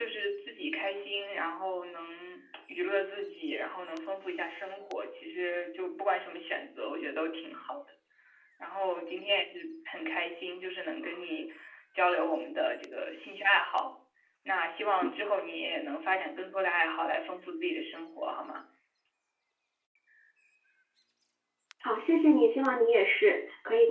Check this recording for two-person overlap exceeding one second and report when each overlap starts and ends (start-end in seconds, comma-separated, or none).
none